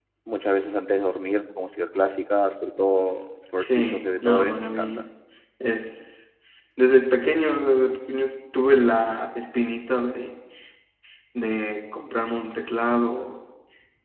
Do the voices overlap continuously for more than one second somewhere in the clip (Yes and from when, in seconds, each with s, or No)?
Yes, from 3.6 s